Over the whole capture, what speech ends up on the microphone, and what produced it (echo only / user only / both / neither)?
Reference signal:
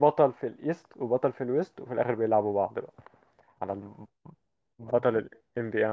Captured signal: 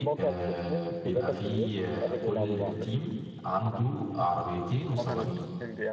both